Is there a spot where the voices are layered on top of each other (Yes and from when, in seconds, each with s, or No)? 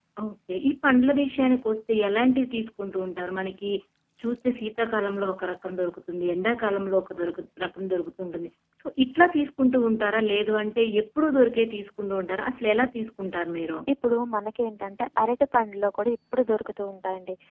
No